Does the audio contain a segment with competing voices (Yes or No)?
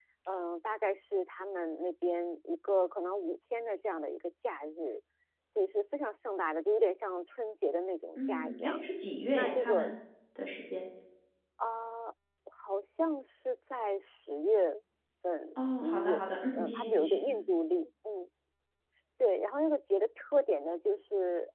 Yes